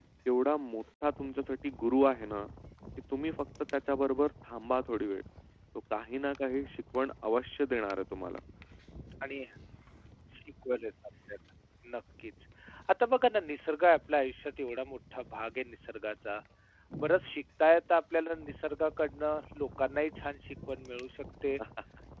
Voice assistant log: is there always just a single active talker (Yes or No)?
Yes